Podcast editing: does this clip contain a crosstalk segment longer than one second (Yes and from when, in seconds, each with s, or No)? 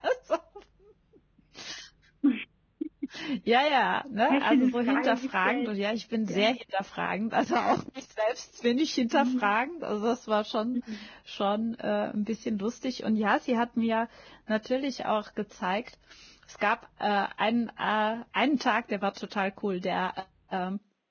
Yes, from 4.3 s